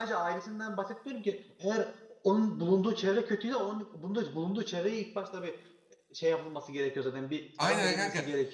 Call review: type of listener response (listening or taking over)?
taking over